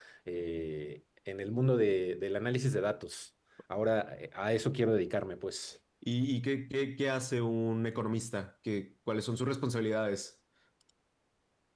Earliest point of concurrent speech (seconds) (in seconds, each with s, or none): none